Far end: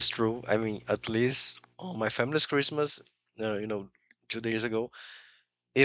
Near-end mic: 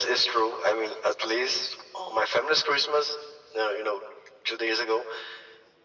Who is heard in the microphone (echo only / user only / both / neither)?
echo only